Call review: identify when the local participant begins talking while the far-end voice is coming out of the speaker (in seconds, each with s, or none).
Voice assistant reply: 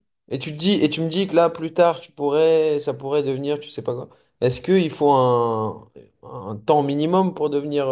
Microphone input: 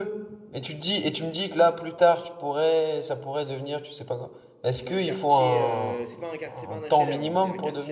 4.8 s